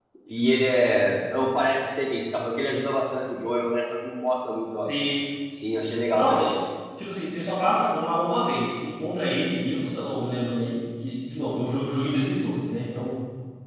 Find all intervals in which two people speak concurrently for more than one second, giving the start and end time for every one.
none

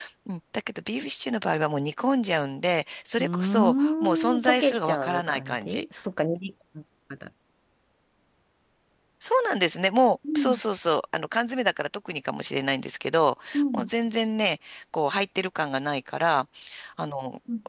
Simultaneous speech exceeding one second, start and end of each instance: 3.2-5.8

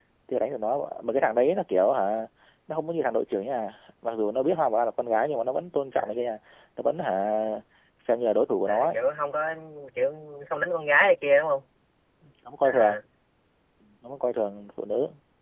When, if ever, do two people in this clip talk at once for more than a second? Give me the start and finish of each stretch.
none

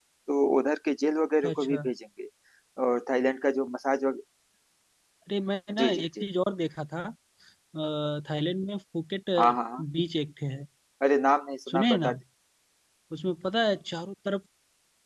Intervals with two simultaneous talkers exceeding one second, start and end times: none

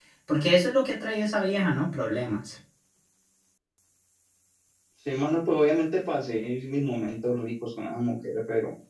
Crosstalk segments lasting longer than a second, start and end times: none

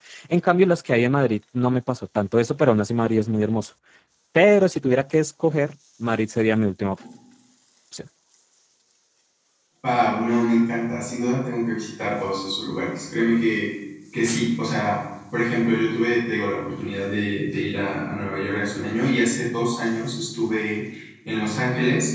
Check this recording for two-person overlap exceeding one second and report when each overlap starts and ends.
none

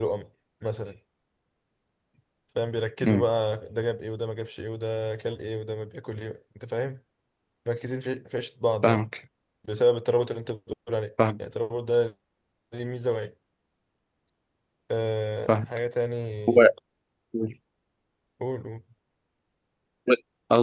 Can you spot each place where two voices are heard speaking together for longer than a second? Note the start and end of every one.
none

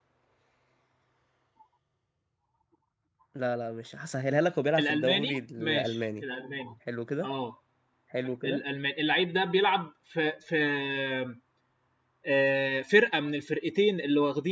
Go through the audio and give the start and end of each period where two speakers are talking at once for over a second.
4.8-6.2

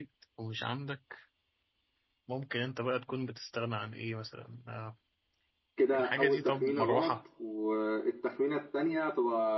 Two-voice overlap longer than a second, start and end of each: 5.9-7.1

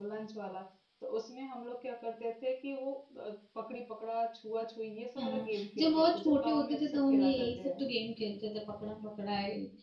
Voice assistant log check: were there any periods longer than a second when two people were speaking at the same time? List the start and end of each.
5.2-7.8

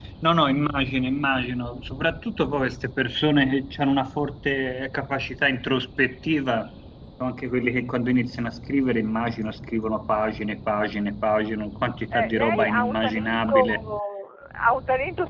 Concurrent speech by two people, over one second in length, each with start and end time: 12.1-13.8

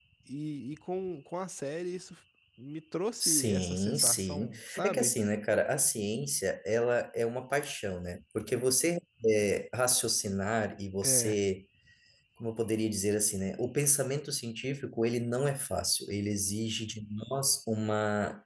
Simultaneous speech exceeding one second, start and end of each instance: 3.2-5.1

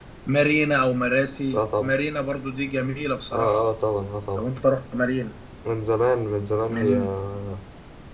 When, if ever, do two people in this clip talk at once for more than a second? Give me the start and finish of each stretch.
none

